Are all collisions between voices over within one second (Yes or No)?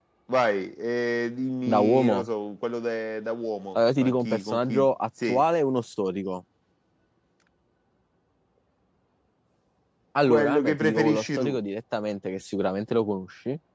No